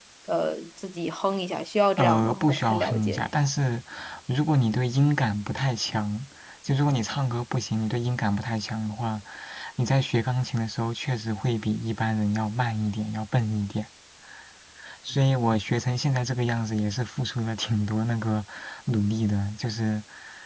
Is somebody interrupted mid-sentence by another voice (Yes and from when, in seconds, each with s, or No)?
Yes, from 2.0 s